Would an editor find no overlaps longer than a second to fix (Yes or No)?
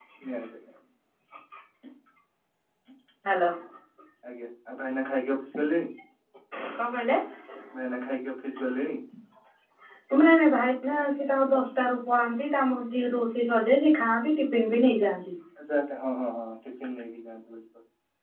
Yes